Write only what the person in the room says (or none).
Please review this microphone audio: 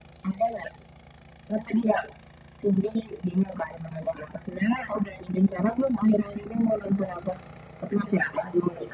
none